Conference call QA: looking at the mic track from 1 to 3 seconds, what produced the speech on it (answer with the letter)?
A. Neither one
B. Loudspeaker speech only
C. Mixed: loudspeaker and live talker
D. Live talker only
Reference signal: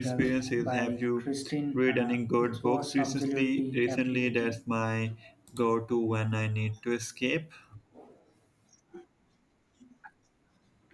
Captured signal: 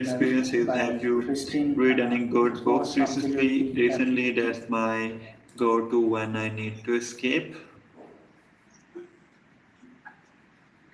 B